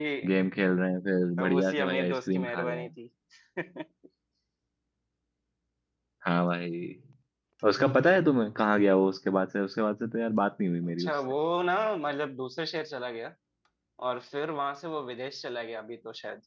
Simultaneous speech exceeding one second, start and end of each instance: 1.4-2.9

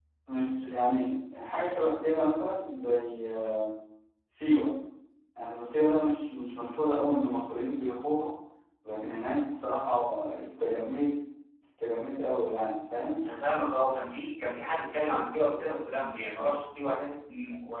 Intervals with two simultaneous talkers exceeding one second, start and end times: none

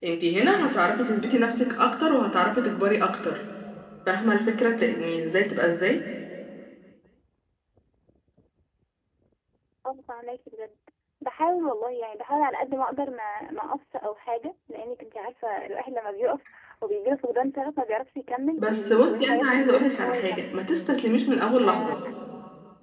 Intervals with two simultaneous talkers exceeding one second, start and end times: 18.6-20.6

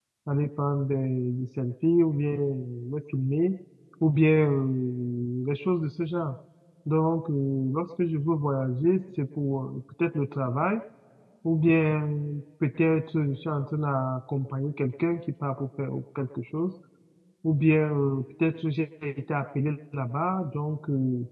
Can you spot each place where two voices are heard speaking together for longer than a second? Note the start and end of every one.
none

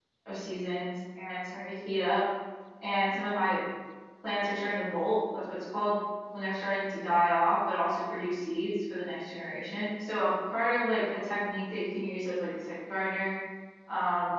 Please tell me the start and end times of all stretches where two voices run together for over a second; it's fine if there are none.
none

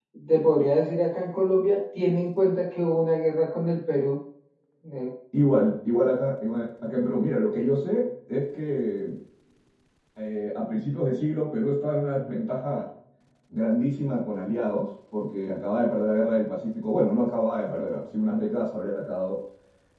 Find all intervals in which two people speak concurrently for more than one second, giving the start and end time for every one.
none

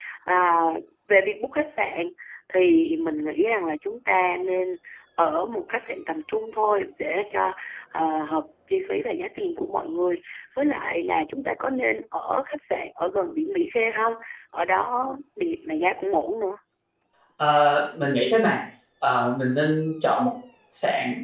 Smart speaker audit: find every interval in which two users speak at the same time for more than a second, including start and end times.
none

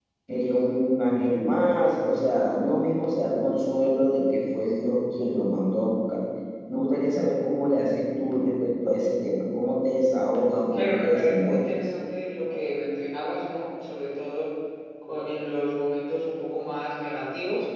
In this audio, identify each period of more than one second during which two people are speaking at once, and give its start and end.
10.7-11.9

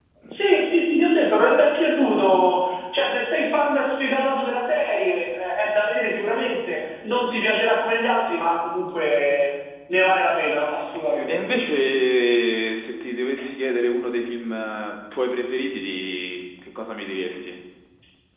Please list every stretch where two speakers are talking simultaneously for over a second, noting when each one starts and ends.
none

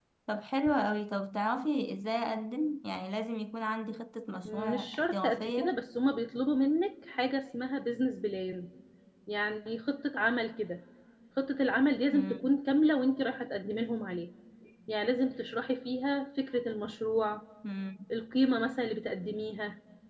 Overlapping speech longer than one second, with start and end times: 4.5-5.8

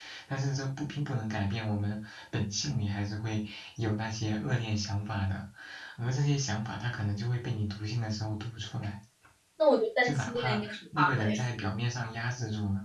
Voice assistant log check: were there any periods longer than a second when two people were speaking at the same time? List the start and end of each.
10.0-11.3

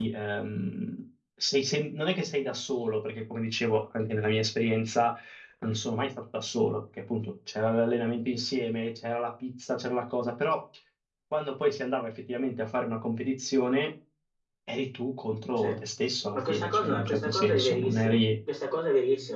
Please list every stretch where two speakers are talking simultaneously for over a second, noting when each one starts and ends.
16.3-18.2

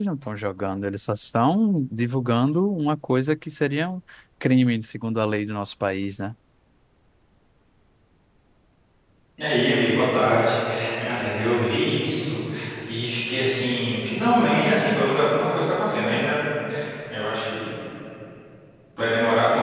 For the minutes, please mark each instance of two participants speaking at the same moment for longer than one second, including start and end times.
none

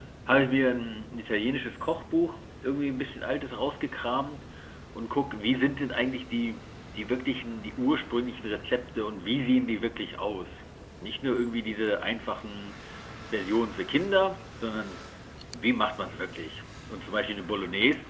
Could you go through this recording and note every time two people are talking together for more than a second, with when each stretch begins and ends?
none

